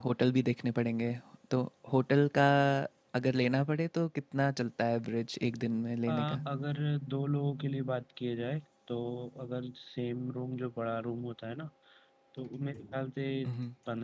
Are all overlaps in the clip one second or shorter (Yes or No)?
Yes